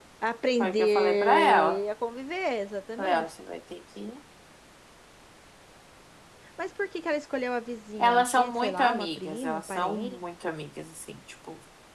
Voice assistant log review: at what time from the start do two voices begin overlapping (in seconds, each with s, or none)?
0.6 s